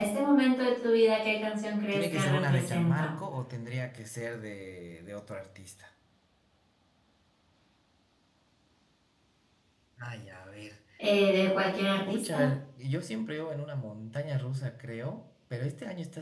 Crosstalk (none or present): present